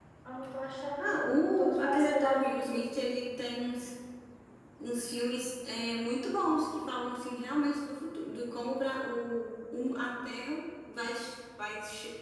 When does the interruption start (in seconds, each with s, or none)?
1.0 s